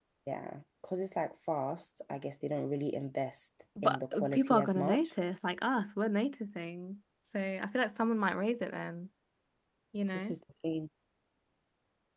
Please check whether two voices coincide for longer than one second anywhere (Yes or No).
Yes